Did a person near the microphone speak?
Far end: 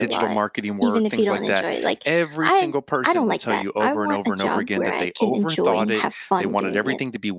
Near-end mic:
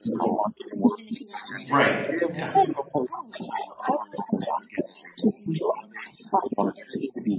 Yes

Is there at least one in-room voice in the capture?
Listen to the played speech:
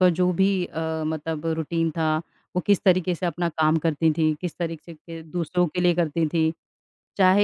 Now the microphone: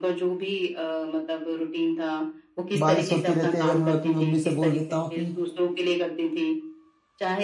Yes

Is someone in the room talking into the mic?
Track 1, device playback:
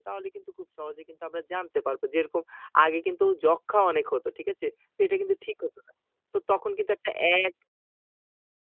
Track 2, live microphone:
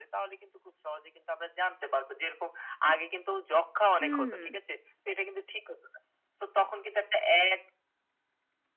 Yes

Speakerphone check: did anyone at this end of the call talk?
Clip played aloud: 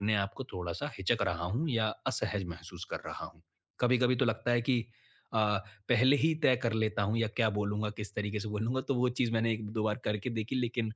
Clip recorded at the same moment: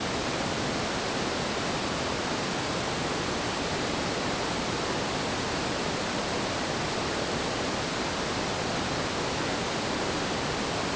No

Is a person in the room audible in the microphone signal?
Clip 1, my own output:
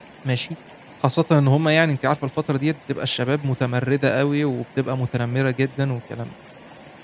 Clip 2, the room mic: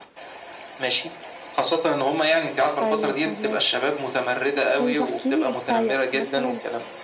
Yes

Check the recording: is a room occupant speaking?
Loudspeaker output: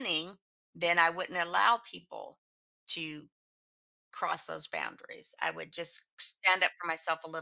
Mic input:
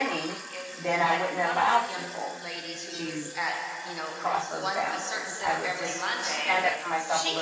Yes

